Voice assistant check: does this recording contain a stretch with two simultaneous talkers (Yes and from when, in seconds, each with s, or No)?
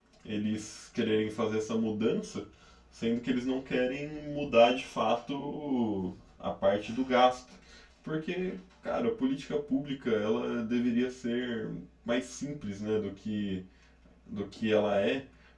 No